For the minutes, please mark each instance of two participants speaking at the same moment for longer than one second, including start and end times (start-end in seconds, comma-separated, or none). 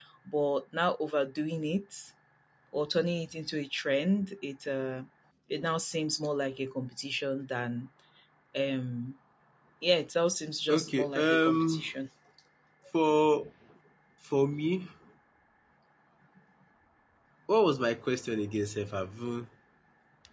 10.7-11.9